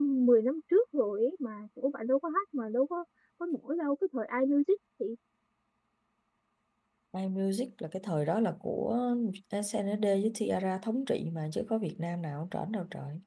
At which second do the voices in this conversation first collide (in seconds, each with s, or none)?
none